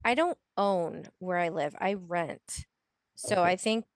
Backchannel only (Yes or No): Yes